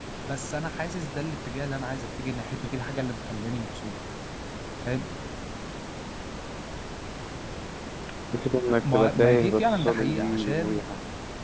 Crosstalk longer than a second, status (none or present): present